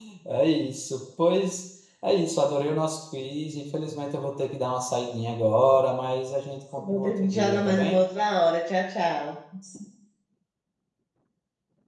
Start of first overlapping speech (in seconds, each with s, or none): 6.8 s